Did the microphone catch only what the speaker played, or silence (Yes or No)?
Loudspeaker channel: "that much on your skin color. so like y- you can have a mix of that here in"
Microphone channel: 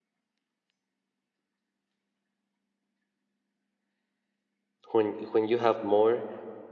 No